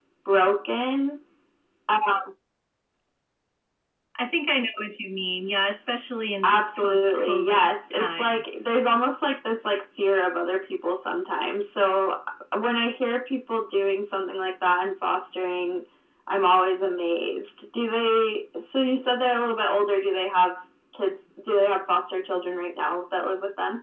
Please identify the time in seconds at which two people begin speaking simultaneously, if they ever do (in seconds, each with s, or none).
6.4 s